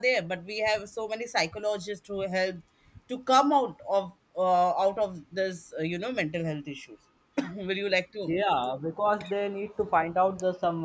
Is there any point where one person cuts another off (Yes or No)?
No